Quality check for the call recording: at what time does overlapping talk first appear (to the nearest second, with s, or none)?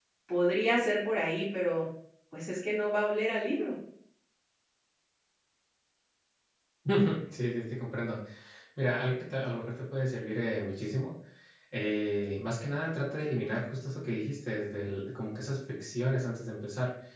none